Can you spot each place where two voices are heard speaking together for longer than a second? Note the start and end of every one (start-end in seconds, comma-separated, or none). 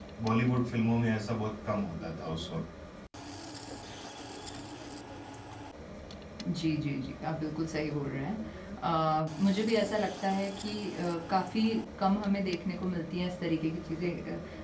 none